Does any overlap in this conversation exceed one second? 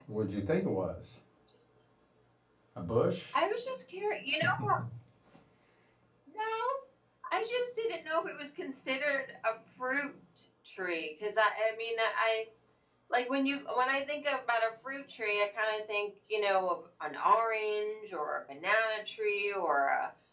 No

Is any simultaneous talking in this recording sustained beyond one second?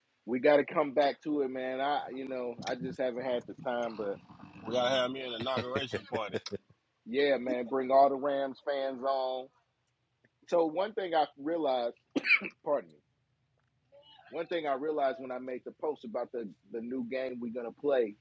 No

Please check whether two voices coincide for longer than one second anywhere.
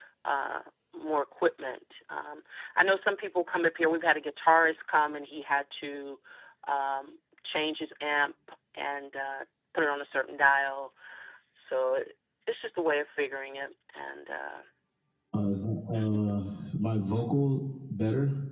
No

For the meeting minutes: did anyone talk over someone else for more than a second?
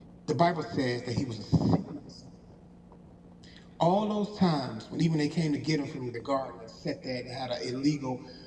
No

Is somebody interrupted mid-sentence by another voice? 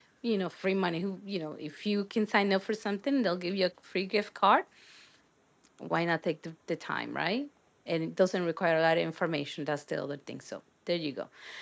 No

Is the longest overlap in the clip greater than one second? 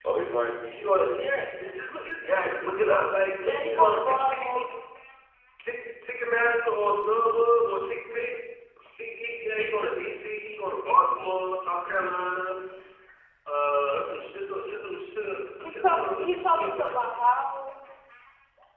Yes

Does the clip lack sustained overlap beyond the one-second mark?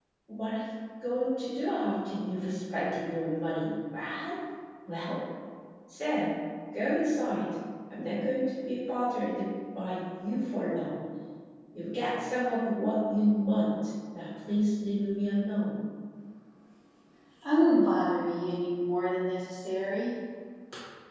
Yes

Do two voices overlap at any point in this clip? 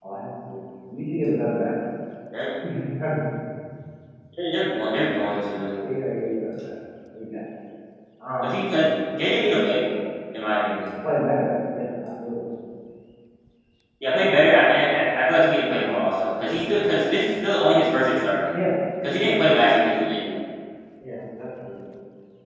No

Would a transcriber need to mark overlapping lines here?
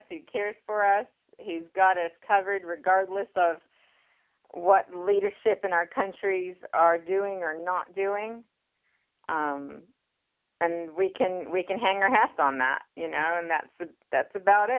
No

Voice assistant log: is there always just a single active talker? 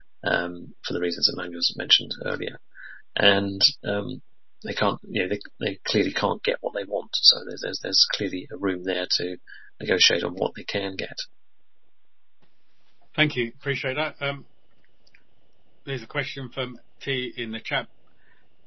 Yes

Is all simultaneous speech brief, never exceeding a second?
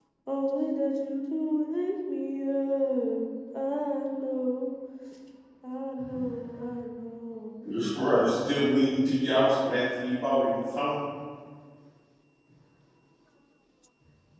Yes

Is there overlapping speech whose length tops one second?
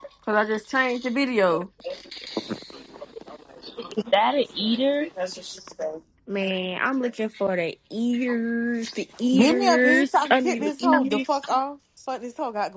Yes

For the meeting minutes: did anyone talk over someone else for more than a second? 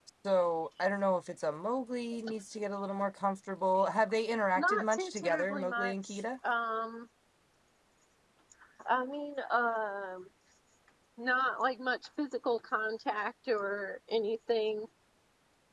Yes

